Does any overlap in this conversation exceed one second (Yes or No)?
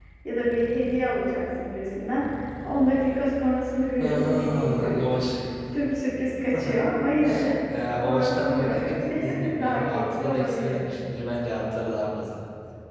Yes